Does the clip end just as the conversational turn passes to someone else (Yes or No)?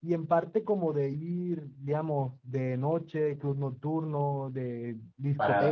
Yes